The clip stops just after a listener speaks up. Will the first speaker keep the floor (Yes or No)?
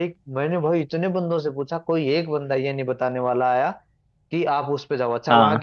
Yes